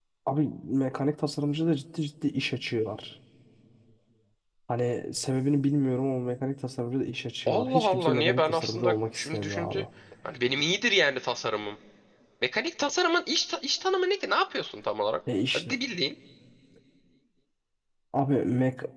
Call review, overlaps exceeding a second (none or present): present